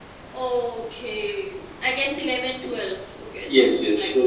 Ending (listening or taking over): taking over